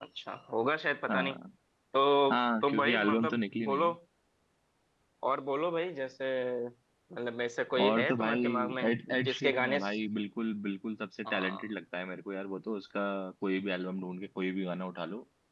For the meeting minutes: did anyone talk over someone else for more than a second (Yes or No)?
Yes